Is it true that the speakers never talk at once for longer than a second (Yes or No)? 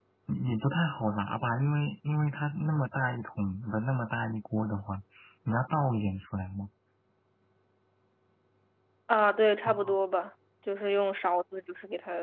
Yes